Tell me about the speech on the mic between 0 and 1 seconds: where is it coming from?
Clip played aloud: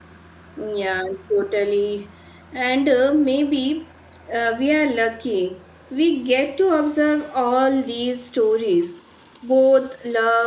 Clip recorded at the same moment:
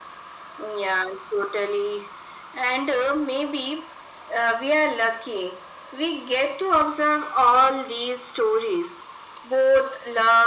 echo only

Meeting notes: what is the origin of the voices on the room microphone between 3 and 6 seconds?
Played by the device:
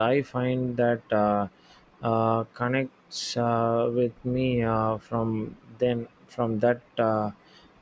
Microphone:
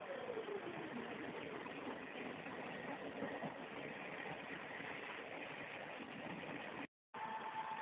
neither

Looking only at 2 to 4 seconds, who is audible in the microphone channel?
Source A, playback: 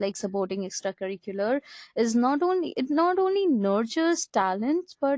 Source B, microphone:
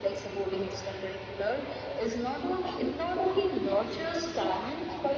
echo only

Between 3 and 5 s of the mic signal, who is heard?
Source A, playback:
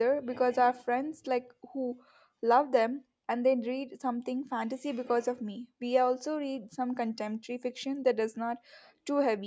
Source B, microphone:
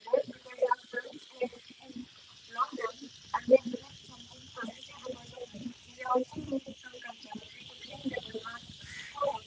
echo only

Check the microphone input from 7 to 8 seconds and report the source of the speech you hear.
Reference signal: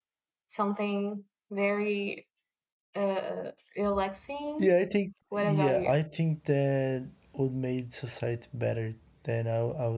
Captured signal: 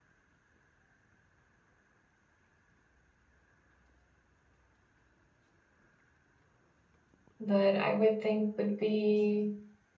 user only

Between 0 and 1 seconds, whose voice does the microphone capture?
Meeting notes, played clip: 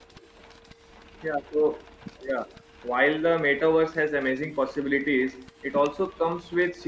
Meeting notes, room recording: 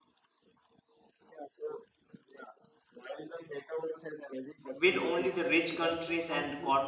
neither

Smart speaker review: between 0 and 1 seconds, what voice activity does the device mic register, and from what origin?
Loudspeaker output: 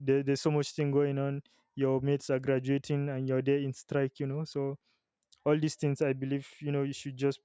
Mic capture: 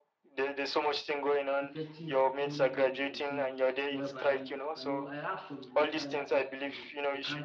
echo only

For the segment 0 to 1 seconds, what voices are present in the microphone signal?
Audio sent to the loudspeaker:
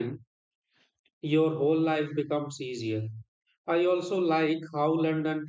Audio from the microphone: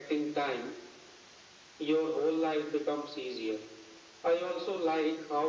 echo only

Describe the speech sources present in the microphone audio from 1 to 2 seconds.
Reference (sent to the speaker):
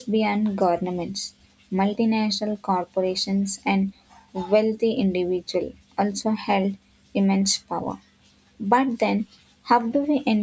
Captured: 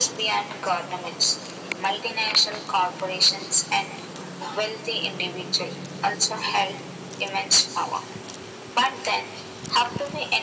echo only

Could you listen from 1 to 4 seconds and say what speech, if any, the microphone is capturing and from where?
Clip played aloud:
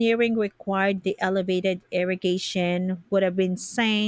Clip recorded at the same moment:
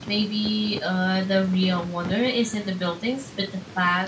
user only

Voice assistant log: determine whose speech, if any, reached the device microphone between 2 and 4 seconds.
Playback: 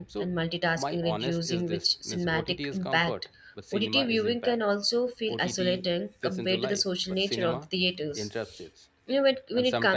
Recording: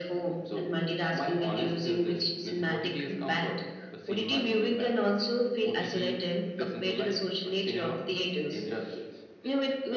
echo only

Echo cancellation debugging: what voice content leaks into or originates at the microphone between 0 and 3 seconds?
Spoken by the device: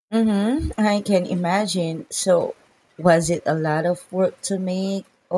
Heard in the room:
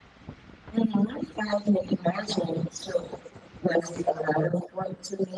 echo only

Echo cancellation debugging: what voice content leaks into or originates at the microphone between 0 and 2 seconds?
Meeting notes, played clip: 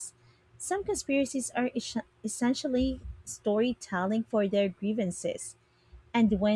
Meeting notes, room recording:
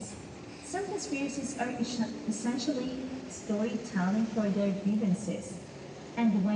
echo only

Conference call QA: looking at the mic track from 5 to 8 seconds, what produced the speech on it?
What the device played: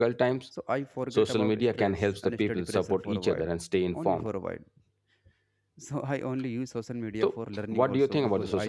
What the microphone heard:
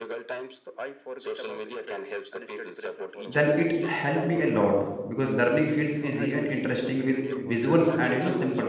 both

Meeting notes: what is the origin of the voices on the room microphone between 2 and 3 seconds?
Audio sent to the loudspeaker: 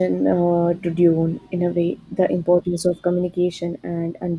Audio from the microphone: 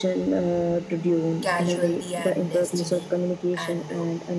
both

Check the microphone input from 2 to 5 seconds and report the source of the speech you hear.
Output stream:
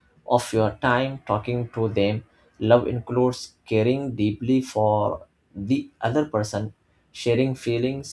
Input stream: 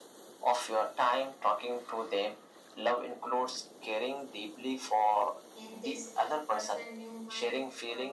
echo only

